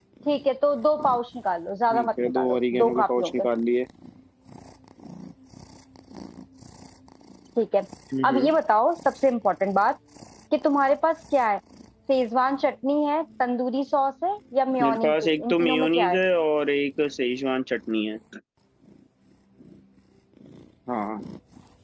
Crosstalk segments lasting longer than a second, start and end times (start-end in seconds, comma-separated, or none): 1.9-3.5, 14.8-16.2